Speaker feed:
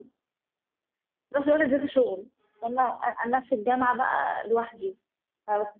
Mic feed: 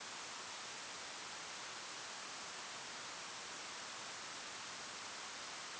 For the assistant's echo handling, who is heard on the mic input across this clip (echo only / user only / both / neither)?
neither